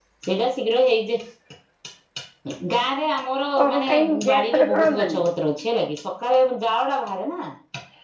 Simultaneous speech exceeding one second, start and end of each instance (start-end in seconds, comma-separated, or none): 3.6-5.2